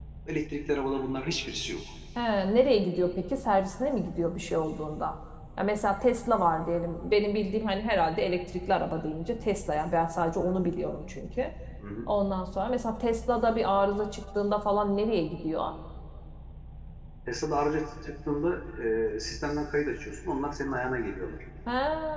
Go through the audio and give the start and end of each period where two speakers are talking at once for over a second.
none

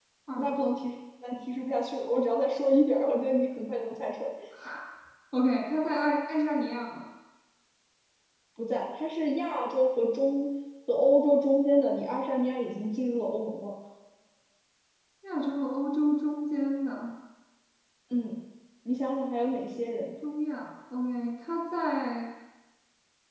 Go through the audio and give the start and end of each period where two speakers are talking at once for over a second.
none

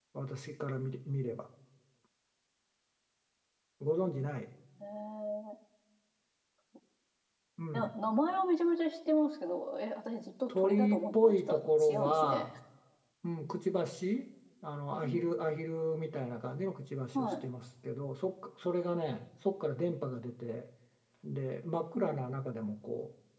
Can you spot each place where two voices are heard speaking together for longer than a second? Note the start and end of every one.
10.6-12.4

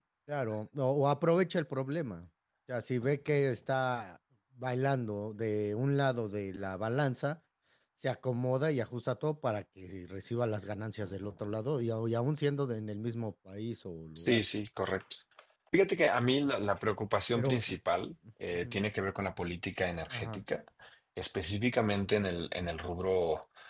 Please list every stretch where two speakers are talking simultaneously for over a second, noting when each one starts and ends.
none

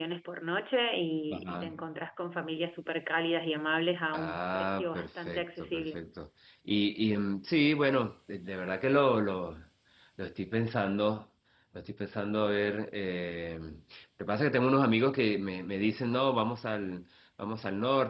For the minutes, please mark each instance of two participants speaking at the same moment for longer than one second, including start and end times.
4.2-6.0

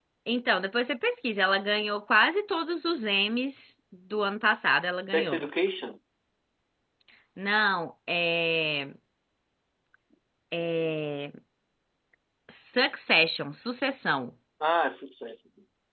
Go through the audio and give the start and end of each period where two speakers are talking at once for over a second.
none

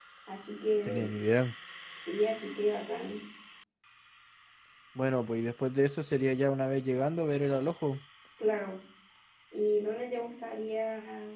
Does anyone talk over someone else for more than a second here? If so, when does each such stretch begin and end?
none

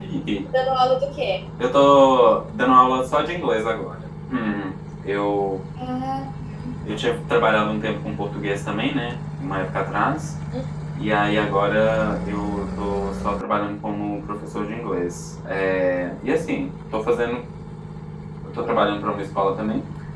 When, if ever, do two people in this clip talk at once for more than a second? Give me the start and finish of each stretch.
none

